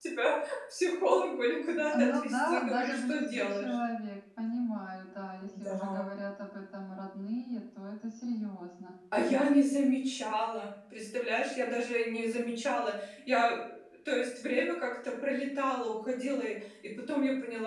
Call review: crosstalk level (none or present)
present